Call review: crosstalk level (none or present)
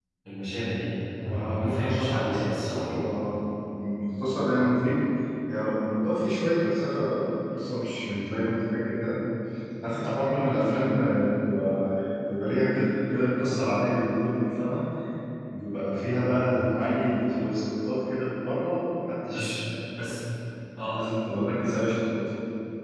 present